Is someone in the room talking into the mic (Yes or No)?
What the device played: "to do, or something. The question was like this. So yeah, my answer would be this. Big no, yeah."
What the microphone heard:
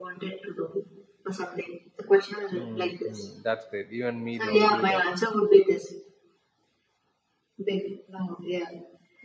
Yes